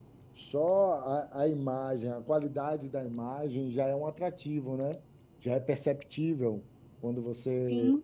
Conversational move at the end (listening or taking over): listening